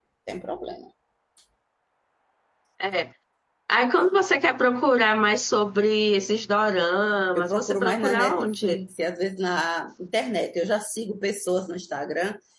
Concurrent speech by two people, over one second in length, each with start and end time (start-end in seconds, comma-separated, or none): 7.3-8.8